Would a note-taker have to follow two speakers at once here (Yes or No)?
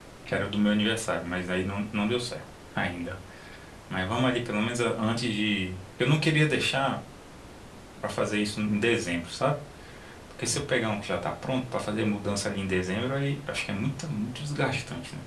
No